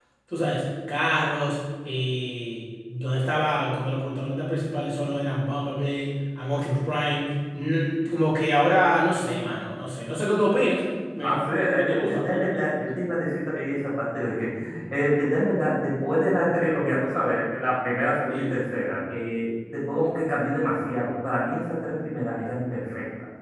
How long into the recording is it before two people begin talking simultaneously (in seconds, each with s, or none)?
11.2 s